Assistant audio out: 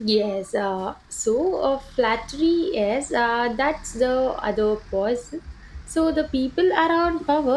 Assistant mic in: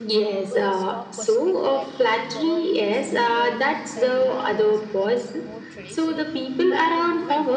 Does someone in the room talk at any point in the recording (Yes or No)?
Yes